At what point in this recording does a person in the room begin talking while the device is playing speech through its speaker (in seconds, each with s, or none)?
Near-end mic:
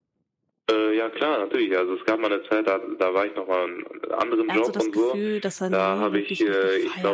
4.5 s